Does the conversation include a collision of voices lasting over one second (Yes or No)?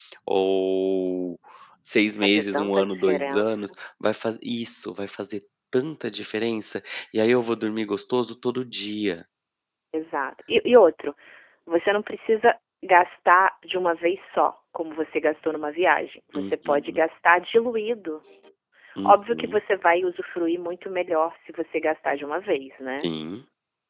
Yes